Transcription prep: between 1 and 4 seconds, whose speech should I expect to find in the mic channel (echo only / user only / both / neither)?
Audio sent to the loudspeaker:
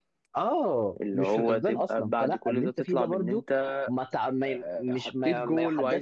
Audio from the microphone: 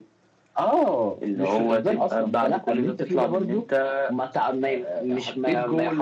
echo only